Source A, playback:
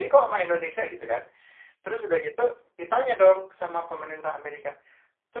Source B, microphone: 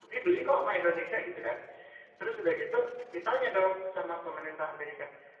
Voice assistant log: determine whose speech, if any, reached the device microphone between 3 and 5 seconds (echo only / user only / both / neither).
echo only